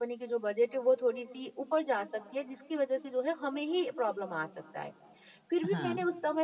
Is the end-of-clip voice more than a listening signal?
No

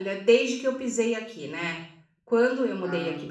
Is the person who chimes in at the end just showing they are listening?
Yes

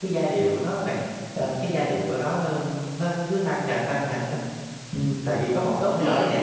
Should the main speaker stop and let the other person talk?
Yes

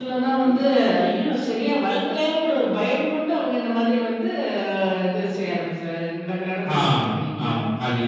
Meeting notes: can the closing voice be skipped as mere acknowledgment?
No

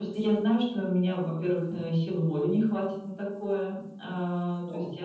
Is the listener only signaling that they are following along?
Yes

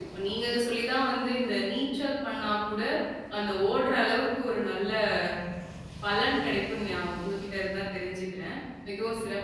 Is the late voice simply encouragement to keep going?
No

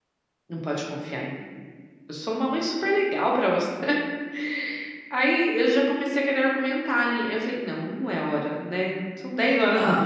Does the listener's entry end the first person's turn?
No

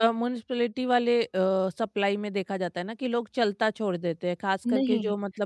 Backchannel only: No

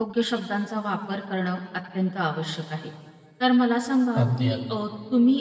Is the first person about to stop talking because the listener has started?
No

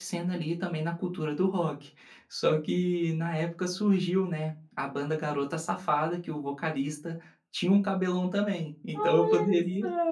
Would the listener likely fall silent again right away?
No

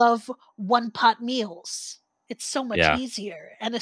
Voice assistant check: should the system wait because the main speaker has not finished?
Yes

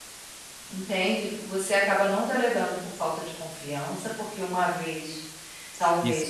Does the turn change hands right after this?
Yes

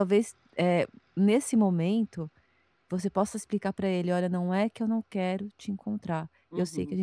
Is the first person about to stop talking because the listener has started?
No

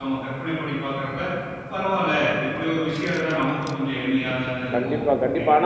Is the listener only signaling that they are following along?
No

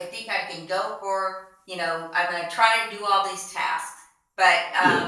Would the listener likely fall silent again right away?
Yes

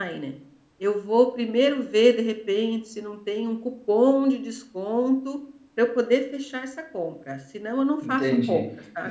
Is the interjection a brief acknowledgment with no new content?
No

